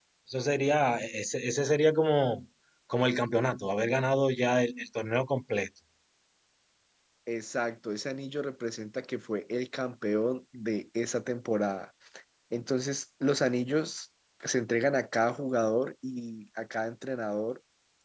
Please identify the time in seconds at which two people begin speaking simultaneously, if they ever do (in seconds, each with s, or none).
none